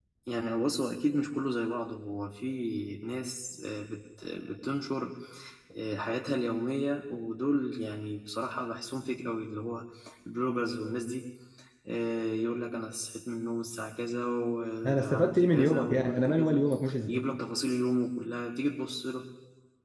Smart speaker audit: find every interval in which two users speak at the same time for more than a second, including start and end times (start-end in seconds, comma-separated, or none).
14.9-16.6